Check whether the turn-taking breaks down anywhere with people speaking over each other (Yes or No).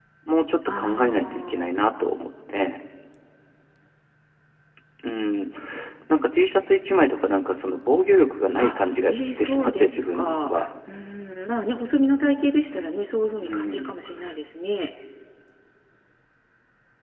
Yes